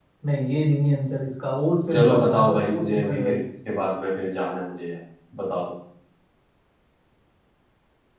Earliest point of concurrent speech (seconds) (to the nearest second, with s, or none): 2 s